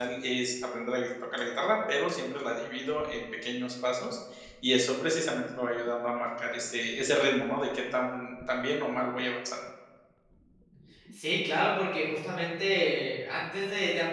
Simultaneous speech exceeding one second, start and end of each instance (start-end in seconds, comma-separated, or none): none